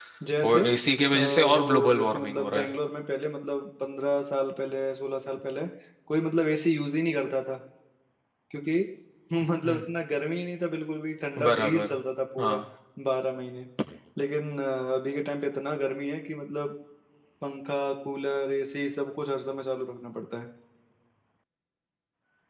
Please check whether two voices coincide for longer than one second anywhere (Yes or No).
Yes